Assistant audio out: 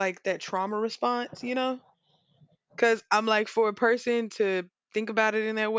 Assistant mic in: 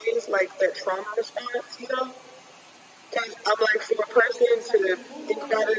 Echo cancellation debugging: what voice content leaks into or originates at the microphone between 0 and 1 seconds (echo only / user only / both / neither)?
echo only